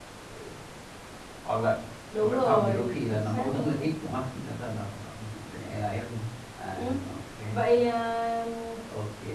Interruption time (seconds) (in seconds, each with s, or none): 2.2 s